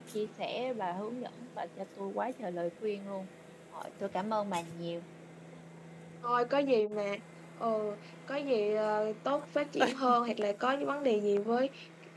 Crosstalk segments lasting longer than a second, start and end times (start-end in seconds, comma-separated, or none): none